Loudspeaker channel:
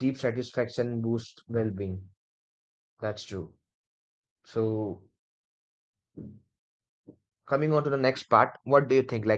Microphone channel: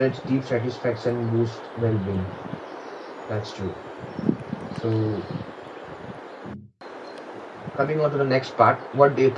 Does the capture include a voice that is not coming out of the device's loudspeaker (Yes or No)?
No